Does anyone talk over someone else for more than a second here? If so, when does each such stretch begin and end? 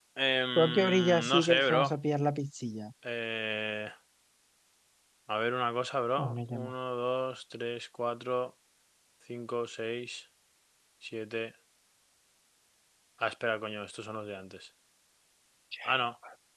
0.6-1.9

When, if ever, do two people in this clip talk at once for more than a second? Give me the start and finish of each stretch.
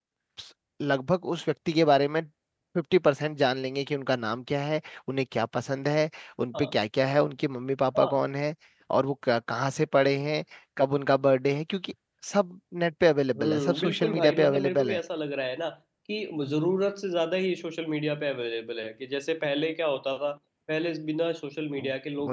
13.4-15.0

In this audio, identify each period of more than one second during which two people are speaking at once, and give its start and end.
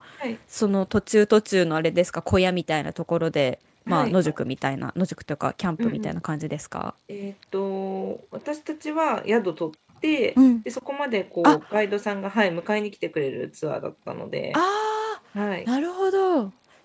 none

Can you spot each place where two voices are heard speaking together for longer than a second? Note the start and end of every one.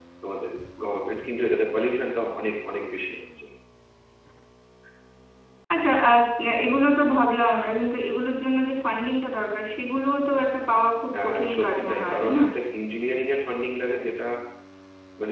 11.1-12.4

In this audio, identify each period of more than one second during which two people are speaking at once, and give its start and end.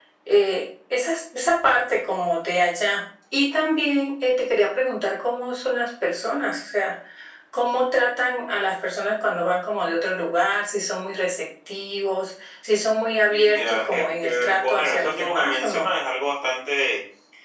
13.3-15.9

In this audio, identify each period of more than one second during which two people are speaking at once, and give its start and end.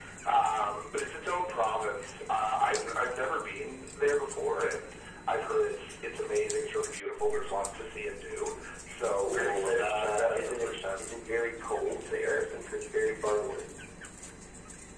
9.2-10.7

